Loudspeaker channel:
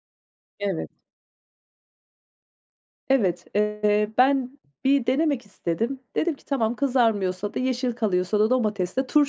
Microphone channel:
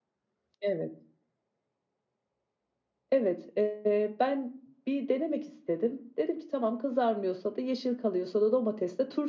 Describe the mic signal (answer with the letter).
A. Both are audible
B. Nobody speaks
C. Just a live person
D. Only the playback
D